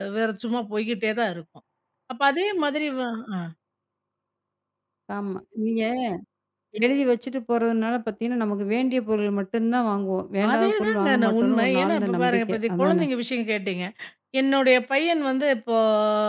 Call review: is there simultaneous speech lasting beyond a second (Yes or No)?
Yes